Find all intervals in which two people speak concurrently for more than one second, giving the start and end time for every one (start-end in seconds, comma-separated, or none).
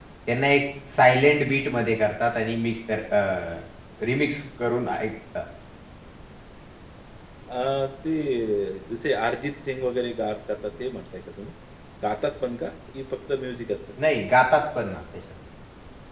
none